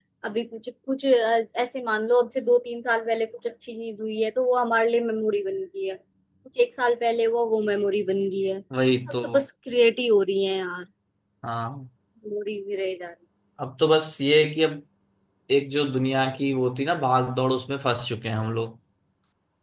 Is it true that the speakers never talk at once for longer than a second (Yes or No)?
Yes